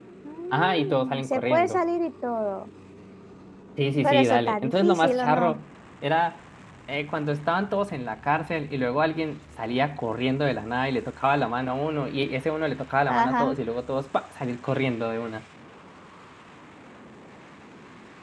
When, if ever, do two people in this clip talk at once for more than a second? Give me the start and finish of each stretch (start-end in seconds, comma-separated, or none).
0.5-1.8, 4.0-5.6